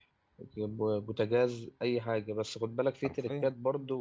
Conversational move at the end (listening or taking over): listening